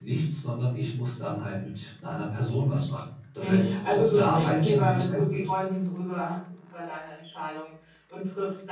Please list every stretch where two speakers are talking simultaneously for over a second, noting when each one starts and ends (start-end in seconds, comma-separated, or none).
3.4-5.5